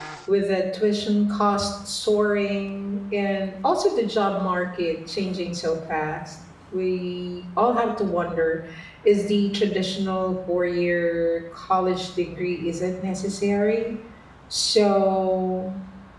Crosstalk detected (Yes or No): No